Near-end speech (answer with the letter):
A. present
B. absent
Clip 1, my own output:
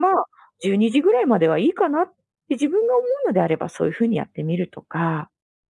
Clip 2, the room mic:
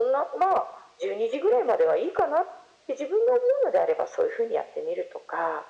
B